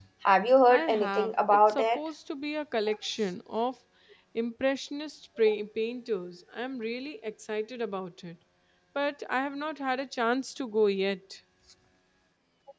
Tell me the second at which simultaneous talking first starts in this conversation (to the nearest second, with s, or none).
1 s